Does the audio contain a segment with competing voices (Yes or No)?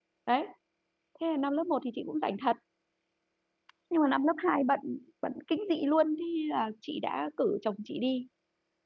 No